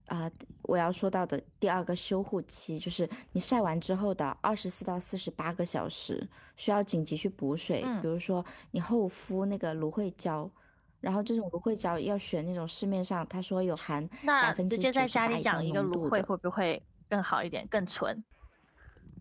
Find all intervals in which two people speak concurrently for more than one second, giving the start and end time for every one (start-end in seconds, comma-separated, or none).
14.2-16.2